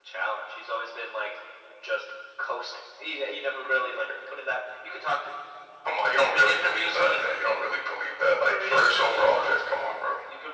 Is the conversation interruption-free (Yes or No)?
No